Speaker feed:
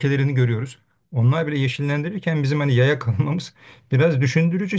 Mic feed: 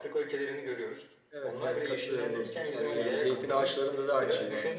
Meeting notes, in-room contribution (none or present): present